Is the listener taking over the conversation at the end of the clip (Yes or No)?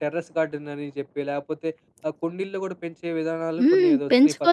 Yes